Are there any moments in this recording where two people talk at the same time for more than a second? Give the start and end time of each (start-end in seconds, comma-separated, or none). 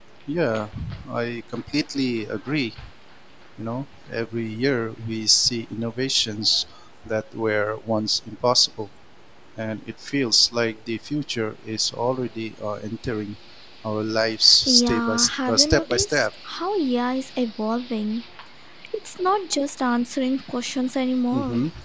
14.7-16.3